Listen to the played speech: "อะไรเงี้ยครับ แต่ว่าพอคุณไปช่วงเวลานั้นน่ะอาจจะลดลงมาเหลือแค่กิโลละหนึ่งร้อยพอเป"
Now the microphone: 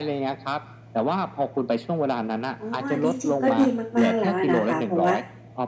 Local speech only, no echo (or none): อ๋ออันที่จริงก็ดีมากๆแล้วอะนะคะเพราะว่า